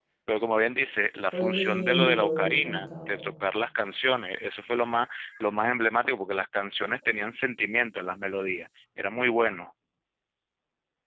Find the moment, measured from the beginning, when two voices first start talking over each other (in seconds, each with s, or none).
1.3 s